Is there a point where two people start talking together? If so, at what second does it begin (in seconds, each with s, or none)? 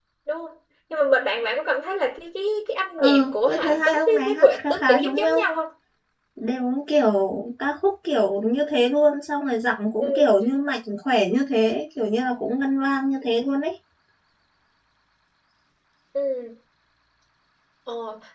3.0 s